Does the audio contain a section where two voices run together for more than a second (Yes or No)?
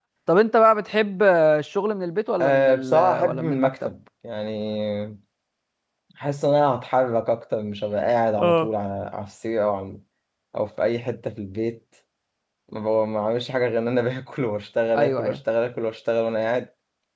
Yes